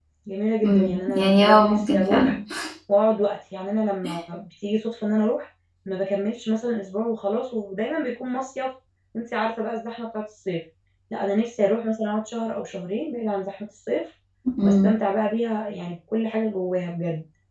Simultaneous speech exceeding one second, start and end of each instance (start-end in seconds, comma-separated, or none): 0.7-2.3